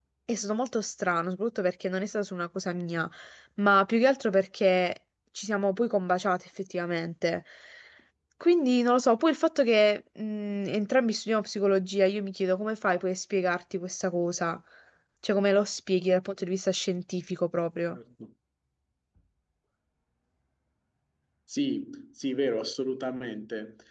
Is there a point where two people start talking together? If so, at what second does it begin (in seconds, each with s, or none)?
none